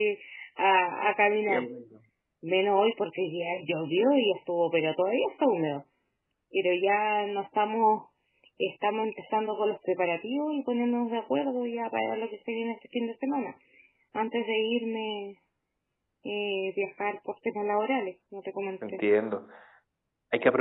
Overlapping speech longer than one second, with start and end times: none

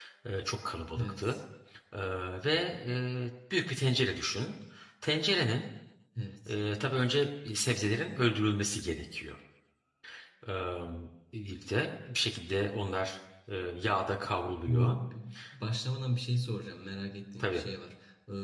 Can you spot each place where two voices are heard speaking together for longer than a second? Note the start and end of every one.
none

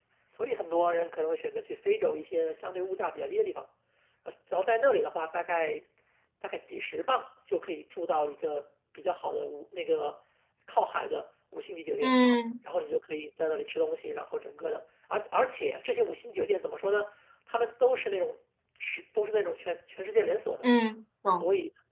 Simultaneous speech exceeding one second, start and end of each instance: none

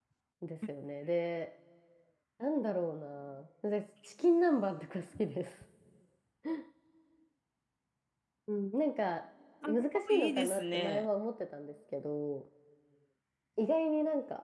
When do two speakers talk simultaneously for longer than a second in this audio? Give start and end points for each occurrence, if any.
9.7-11.1

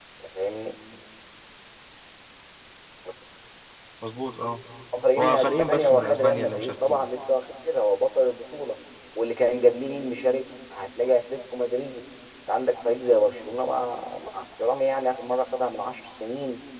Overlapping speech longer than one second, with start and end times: 5.2-7.0

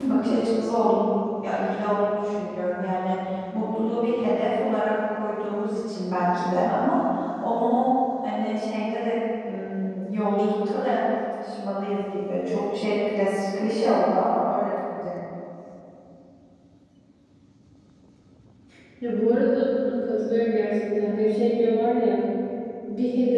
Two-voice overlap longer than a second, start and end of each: none

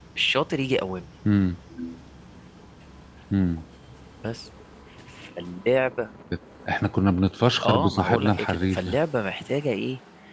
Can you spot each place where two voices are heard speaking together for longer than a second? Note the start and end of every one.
7.6-9.0

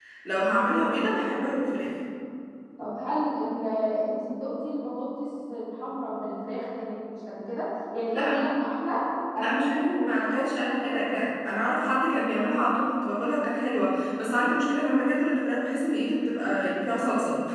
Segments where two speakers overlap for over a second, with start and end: 9.4-11.2

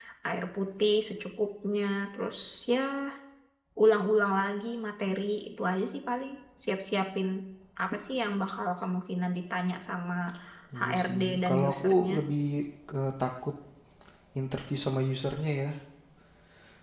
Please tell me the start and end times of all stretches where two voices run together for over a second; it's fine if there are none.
10.8-12.1

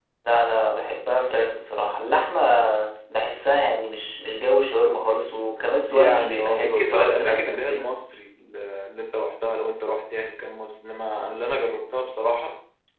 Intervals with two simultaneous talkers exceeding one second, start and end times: 5.9-7.9

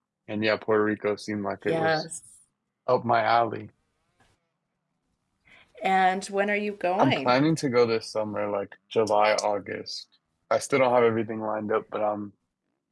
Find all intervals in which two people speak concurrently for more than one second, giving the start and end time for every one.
none

